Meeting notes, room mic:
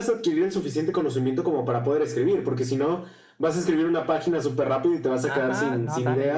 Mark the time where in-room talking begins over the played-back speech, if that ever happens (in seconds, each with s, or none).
5.2 s